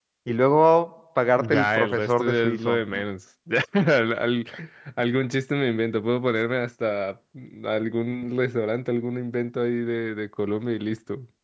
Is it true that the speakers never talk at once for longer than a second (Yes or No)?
No